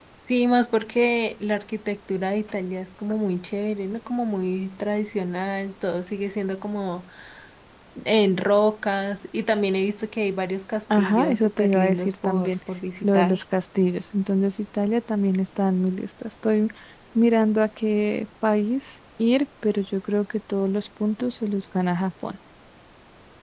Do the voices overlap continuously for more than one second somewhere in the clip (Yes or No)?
Yes